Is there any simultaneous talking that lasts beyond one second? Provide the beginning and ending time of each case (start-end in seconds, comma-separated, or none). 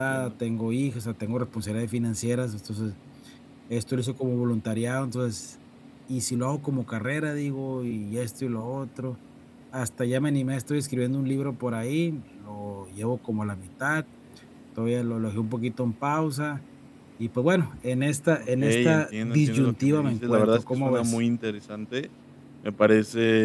18.4-21.2